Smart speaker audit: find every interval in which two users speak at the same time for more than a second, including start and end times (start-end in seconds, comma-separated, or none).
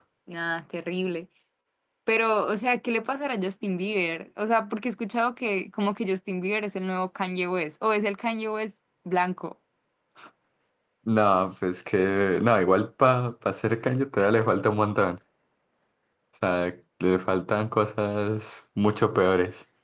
none